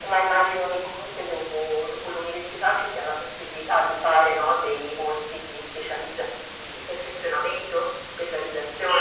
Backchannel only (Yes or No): No